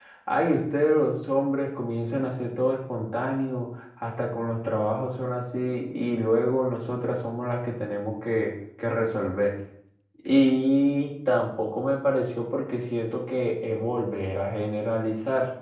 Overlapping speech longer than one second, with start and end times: none

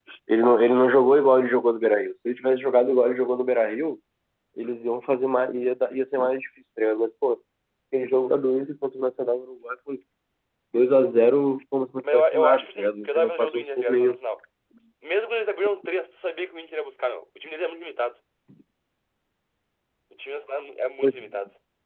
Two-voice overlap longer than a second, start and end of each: 12.1-14.1

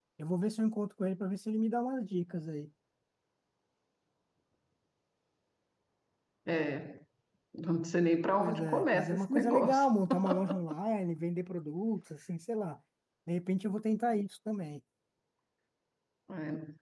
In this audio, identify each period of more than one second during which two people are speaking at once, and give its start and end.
8.4-9.9

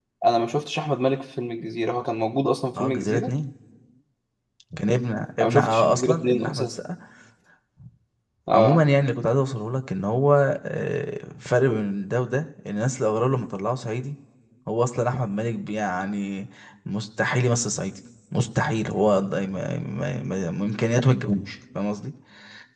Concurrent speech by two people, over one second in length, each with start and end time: 5.4-6.7

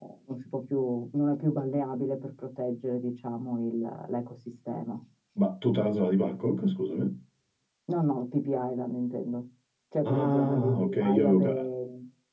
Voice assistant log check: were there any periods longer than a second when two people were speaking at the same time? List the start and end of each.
10.0-11.7

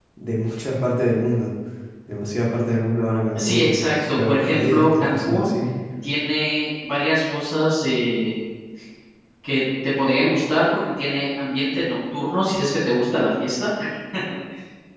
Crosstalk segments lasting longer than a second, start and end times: 3.4-5.5

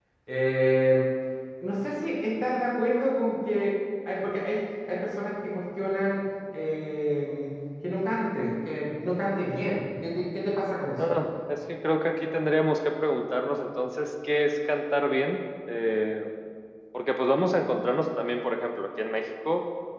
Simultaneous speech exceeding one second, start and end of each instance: none

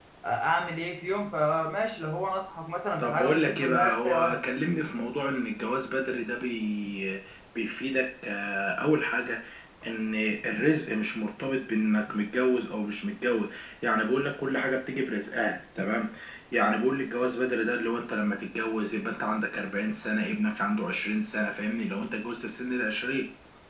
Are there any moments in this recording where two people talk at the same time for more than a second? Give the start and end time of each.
3.0-4.4

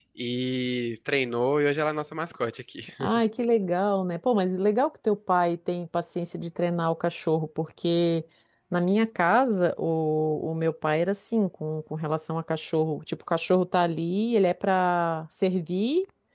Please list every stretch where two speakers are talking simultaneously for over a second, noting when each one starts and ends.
none

